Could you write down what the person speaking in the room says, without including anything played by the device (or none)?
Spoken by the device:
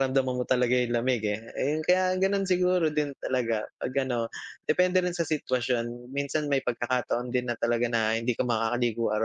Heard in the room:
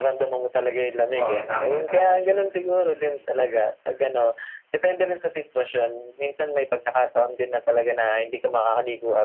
Oo, tama, tama yun. Mm.